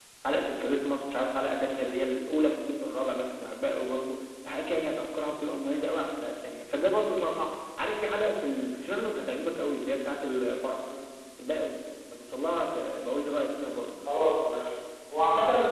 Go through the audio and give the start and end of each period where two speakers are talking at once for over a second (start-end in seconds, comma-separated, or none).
none